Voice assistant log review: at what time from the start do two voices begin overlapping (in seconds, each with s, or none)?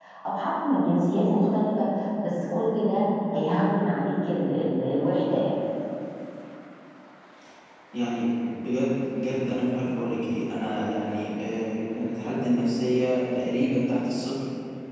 none